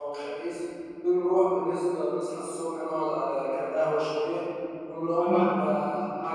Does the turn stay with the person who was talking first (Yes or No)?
Yes